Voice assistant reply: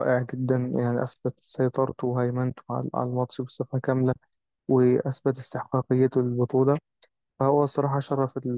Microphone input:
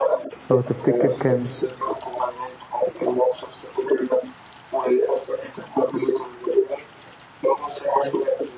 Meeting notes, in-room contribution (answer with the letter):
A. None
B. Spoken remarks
B